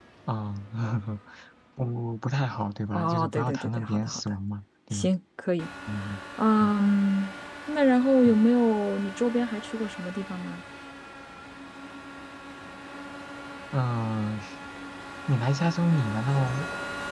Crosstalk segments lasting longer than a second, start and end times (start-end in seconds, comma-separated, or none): 2.9-4.2